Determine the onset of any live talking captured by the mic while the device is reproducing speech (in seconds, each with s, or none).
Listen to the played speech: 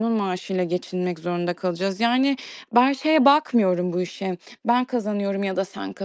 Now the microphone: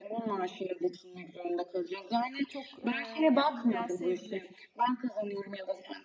2.5 s